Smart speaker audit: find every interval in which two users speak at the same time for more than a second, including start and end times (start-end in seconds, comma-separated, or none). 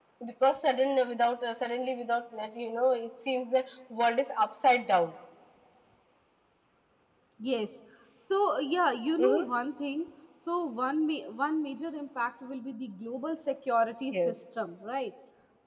none